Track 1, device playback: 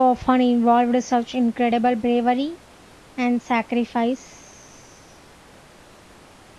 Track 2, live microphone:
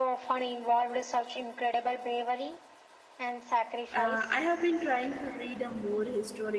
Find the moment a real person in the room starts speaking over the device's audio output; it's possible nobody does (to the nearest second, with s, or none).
4 s